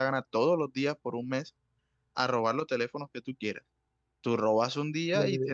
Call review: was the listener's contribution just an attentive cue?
Yes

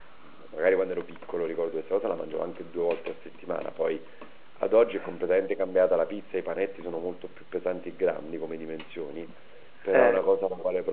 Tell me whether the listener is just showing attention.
Yes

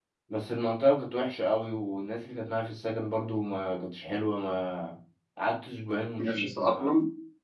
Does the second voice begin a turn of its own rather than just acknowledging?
No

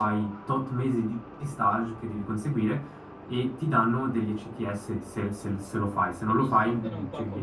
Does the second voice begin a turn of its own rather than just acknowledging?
Yes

